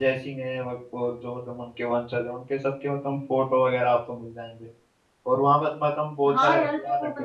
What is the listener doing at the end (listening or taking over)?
taking over